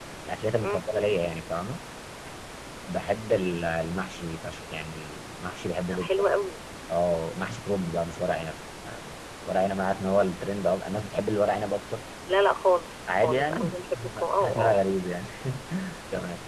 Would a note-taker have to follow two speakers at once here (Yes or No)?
Yes